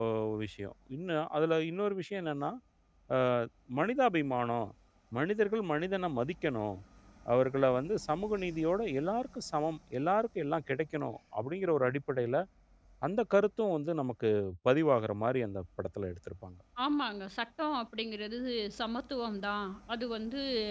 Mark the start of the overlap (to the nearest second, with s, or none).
none